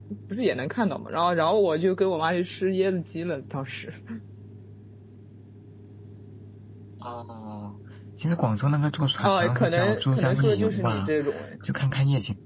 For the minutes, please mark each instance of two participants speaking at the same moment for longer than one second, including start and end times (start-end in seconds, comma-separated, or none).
9.2-11.1